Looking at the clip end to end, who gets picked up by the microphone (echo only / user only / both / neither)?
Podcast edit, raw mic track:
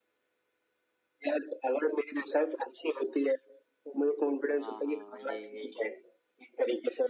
both